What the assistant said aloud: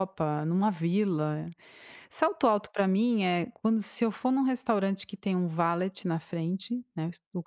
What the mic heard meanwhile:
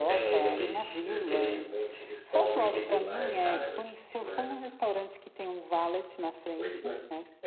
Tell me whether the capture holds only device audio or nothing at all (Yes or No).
No